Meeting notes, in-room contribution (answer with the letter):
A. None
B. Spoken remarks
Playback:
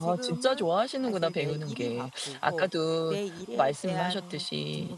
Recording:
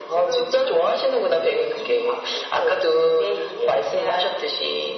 A